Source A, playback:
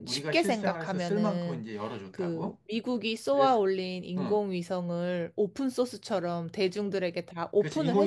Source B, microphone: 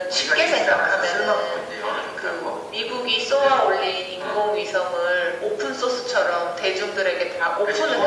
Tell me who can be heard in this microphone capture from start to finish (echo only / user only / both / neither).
echo only